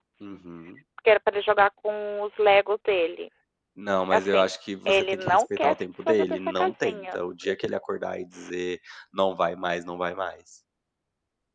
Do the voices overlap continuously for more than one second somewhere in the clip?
Yes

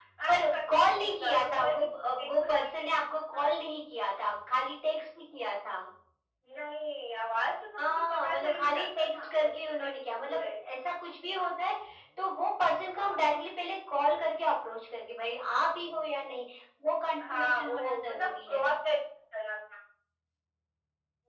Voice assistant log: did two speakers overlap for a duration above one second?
Yes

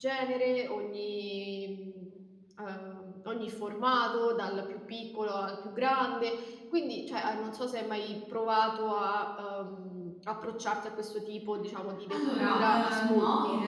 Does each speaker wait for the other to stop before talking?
No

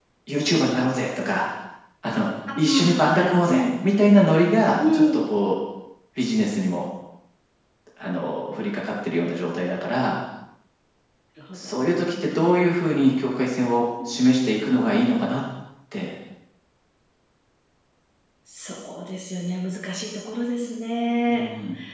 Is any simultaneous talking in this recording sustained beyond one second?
Yes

